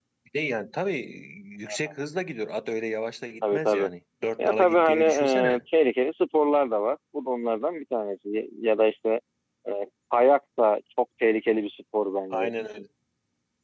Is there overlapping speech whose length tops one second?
Yes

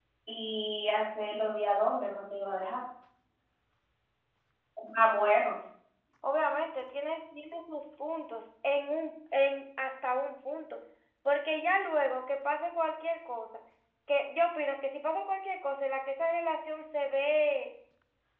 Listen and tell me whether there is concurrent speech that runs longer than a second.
No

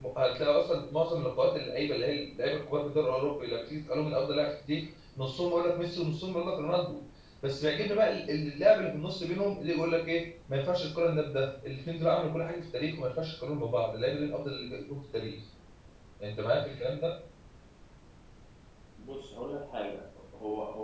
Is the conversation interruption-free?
Yes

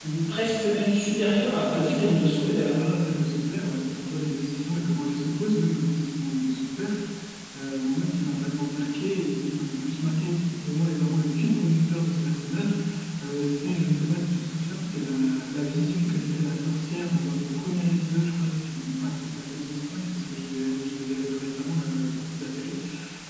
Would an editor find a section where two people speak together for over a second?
Yes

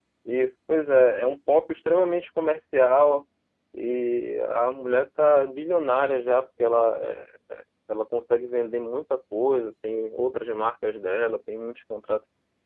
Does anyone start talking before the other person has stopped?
No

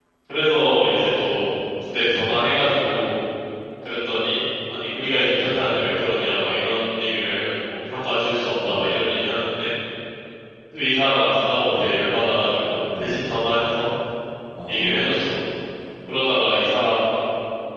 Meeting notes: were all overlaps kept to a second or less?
Yes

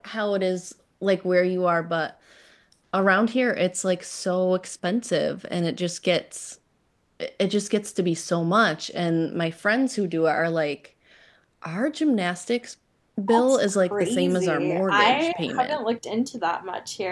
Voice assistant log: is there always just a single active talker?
No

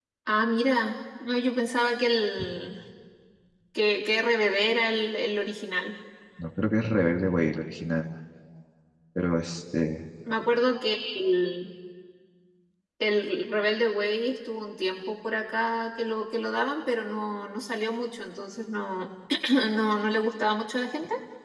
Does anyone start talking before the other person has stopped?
No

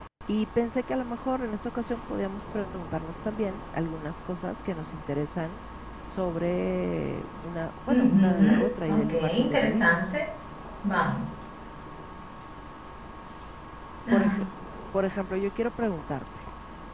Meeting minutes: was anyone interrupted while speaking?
Yes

